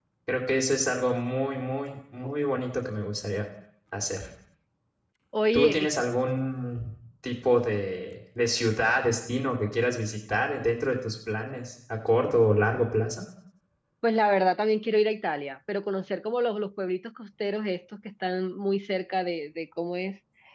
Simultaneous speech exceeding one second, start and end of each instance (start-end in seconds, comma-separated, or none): none